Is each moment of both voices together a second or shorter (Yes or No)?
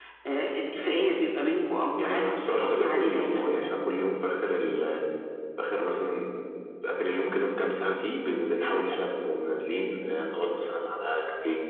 No